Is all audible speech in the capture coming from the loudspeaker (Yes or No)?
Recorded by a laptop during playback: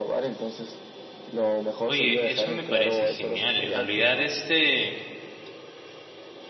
No